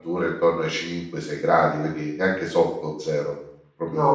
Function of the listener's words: taking over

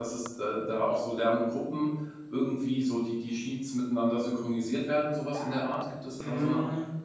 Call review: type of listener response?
taking over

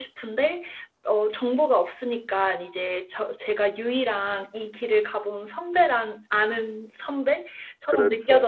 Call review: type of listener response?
listening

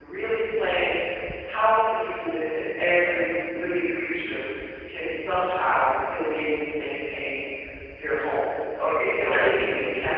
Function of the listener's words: listening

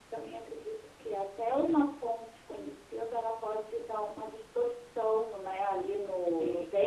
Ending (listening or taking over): listening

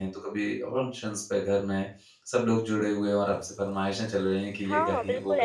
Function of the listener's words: taking over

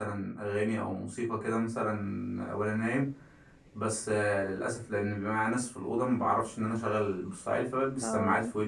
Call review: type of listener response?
listening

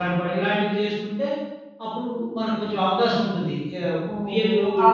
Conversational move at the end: taking over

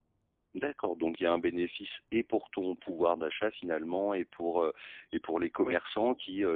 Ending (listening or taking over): listening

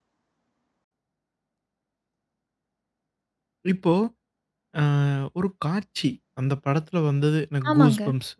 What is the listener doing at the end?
listening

